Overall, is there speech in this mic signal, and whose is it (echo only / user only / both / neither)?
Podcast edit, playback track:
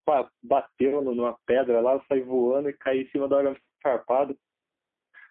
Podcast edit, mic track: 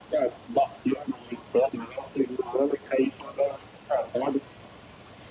echo only